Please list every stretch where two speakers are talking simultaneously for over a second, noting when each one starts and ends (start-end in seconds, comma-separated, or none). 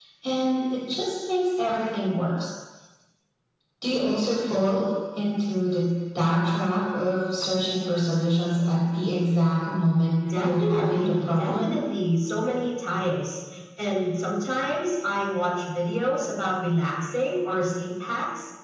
10.3-11.8